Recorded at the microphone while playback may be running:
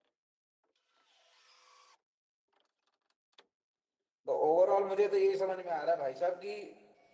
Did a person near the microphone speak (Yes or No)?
Yes